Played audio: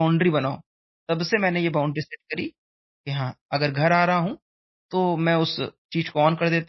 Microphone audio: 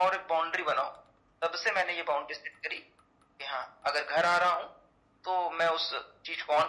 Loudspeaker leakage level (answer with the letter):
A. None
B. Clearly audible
B